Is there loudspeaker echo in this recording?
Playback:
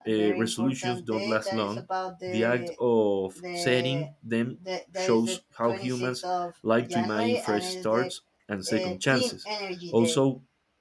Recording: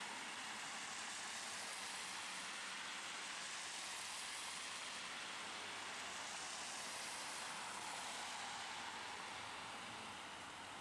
No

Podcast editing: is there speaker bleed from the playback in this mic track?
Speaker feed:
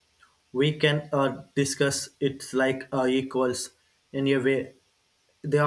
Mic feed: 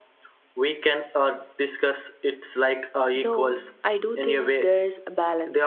Yes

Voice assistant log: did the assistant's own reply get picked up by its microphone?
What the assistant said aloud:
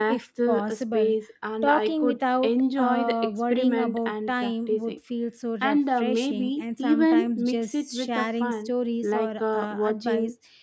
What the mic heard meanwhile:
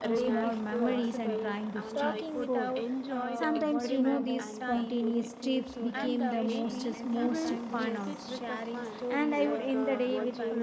Yes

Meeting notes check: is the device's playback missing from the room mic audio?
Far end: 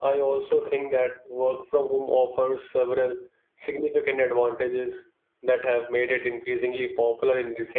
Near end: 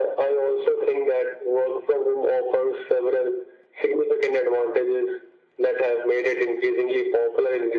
No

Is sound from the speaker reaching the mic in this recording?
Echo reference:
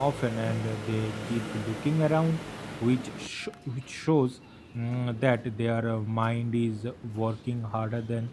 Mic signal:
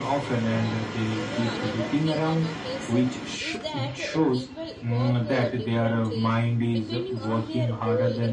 Yes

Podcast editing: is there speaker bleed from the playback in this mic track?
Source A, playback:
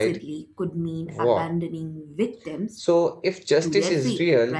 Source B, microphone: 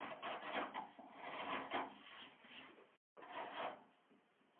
No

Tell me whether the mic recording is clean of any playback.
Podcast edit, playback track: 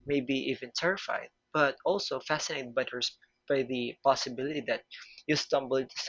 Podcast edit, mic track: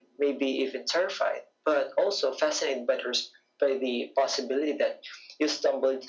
No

